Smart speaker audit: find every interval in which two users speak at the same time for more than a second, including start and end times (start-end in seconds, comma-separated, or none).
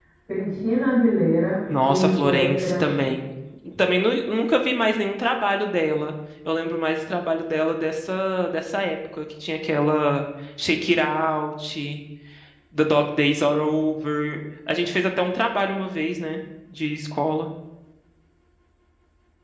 1.7-3.1